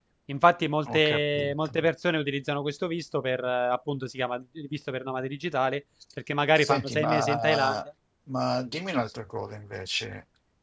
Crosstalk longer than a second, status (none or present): present